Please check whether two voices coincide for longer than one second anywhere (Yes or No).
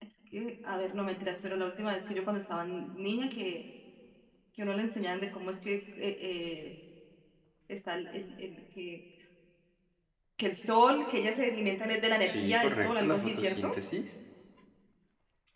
Yes